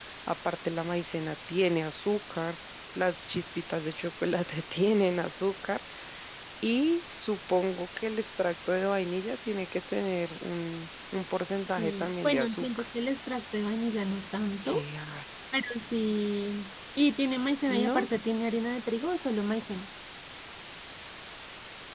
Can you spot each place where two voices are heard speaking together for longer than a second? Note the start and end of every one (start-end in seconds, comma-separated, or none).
11.6-12.8